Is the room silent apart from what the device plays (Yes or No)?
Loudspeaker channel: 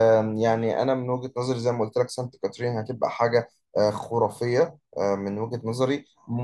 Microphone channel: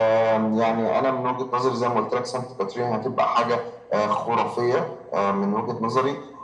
Yes